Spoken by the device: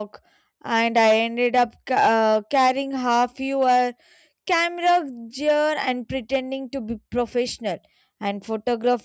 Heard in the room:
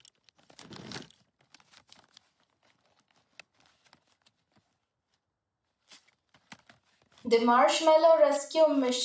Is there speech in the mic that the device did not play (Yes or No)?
Yes